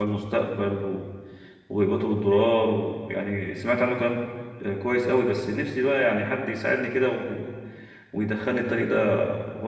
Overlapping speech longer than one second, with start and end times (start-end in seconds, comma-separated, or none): none